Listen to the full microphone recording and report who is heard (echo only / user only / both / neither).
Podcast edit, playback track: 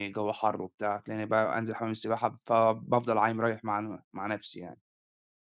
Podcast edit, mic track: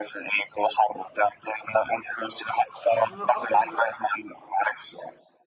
both